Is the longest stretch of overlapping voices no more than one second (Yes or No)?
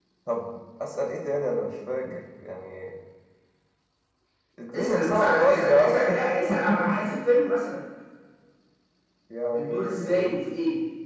No